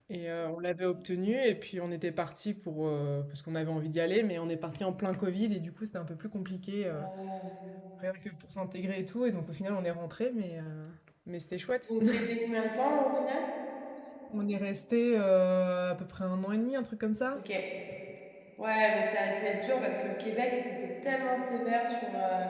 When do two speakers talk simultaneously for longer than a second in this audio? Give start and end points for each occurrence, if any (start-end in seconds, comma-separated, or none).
none